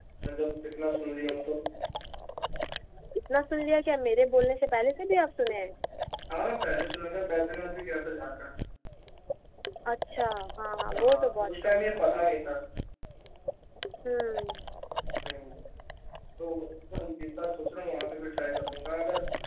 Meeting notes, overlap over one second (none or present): present